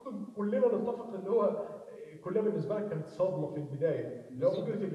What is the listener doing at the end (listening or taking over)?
listening